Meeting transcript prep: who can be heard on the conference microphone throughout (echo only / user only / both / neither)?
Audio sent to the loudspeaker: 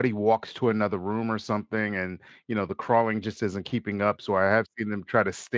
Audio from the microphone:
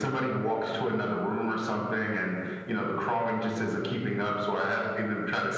echo only